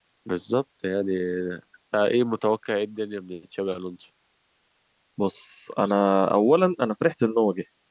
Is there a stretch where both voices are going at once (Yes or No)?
No